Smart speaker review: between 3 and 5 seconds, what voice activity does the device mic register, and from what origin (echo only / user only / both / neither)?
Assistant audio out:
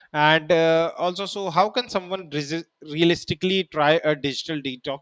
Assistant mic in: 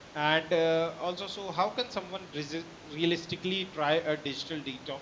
echo only